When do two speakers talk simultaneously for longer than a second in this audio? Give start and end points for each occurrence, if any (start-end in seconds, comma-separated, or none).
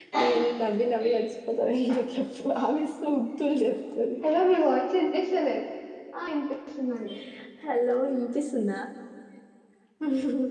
none